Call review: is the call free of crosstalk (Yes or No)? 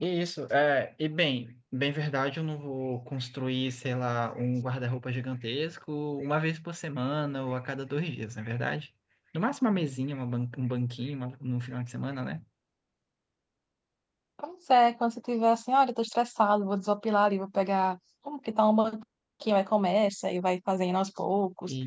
Yes